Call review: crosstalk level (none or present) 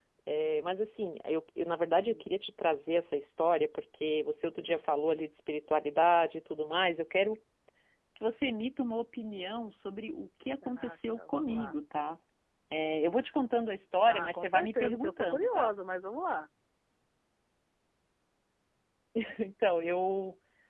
present